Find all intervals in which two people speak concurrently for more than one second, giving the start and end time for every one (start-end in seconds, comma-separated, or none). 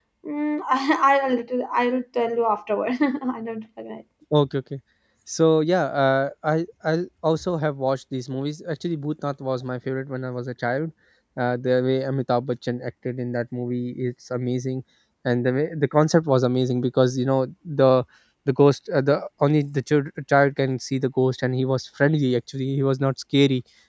none